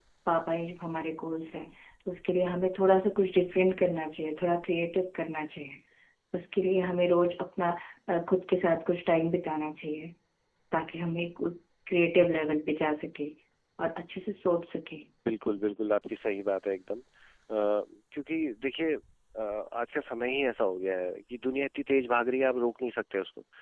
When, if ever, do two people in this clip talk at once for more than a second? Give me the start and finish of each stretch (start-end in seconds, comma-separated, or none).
none